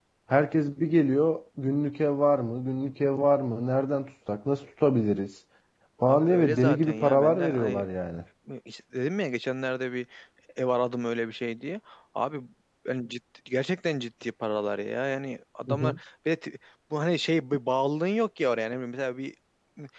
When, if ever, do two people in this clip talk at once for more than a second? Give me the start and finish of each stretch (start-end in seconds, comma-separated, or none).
6.1-7.9